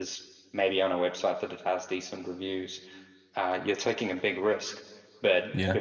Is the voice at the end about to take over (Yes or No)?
No